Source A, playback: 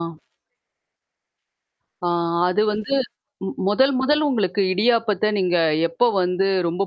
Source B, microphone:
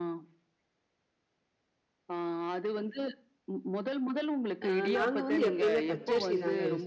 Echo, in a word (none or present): present